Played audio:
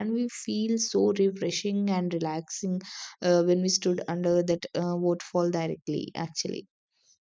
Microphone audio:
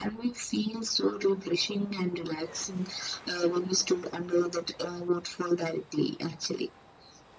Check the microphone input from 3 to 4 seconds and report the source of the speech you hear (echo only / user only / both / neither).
echo only